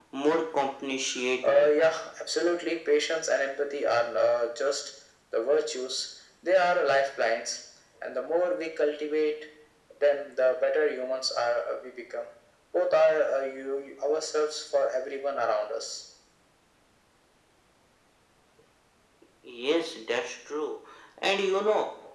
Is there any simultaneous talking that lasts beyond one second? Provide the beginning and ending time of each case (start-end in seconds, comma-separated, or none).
none